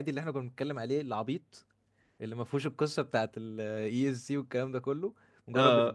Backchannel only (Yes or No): No